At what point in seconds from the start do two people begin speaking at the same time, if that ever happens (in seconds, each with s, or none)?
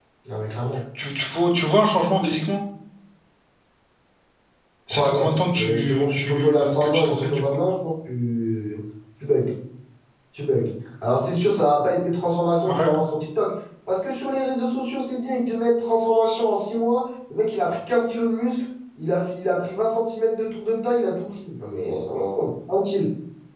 4.9 s